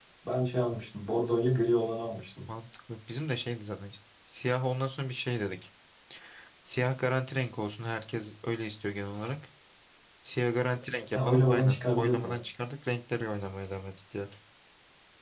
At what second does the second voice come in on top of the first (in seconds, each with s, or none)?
11.1 s